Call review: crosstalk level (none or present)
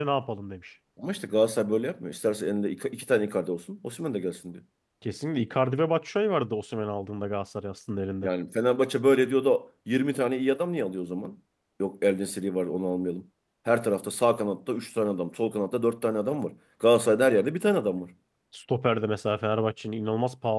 none